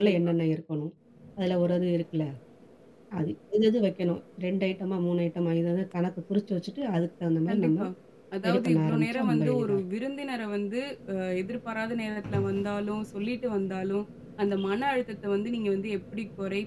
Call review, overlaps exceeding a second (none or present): present